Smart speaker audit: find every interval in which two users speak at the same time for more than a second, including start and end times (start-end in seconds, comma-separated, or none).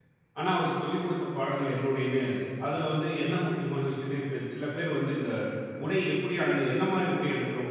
none